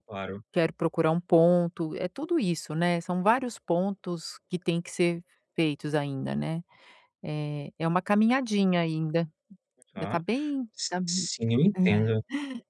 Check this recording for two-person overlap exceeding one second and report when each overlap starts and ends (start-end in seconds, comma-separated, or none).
none